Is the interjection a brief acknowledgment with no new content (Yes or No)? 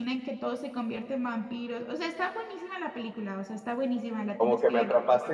No